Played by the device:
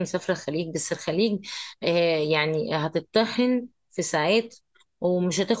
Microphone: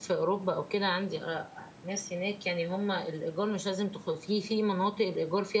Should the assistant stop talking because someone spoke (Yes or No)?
Yes